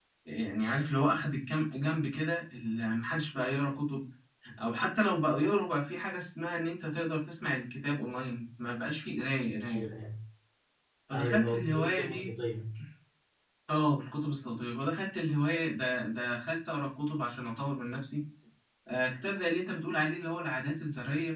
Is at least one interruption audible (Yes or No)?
Yes